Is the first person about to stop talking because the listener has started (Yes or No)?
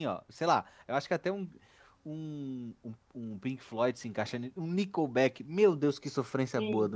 Yes